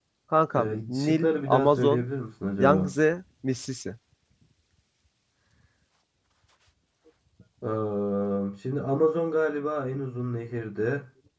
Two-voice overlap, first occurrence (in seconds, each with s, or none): 0.6 s